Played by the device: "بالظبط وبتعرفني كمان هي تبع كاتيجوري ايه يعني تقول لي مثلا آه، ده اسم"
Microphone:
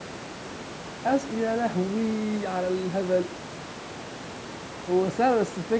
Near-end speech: present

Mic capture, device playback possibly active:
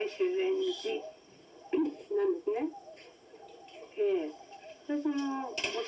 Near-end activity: none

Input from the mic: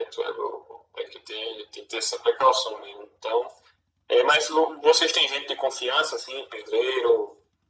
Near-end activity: none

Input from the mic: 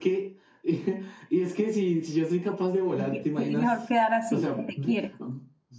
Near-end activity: present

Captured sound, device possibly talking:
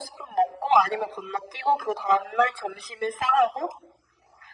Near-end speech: none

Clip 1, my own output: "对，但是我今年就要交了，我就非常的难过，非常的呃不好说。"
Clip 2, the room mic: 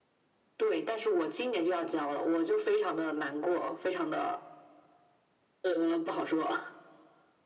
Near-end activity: none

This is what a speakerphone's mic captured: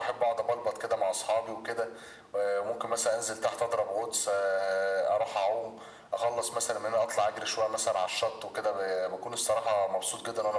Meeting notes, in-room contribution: none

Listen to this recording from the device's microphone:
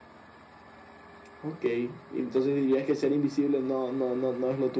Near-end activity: none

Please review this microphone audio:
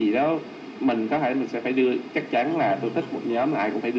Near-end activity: present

